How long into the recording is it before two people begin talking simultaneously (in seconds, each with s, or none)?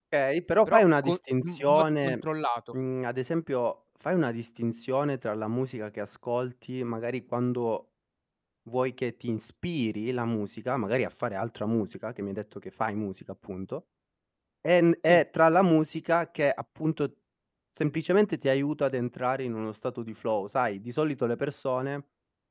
0.7 s